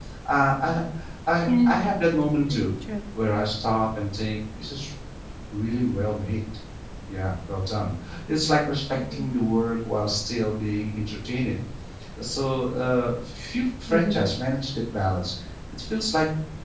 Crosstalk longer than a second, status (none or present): none